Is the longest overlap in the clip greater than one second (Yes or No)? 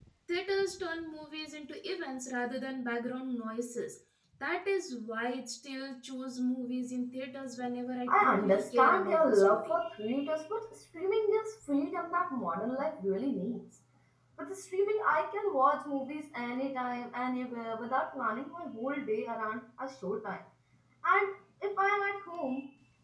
Yes